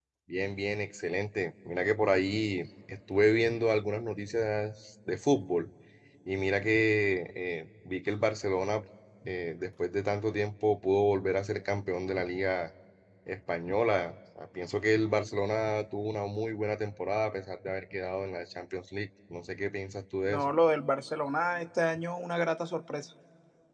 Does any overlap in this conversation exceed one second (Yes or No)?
No